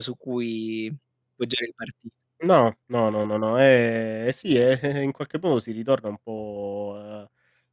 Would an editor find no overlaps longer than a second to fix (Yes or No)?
Yes